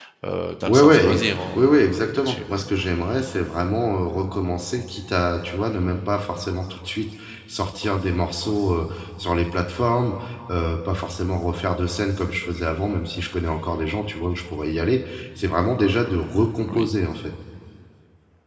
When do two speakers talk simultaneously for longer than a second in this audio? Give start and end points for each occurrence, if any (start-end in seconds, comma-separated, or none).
0.7-2.4